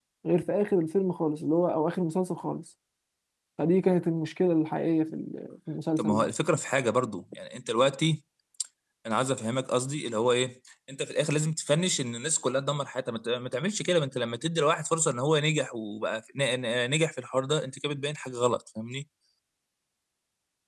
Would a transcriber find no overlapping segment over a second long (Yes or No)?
Yes